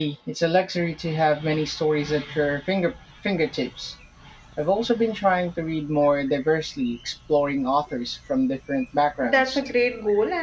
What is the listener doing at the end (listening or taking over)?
taking over